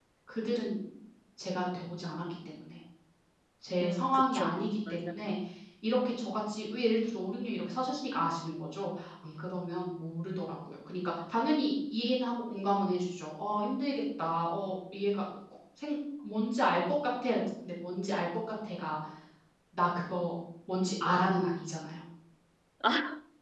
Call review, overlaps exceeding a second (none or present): present